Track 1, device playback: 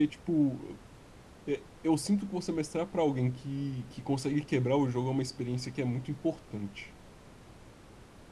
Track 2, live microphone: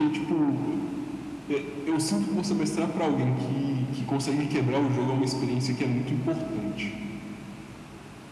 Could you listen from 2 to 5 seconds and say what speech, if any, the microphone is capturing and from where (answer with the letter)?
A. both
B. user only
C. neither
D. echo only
D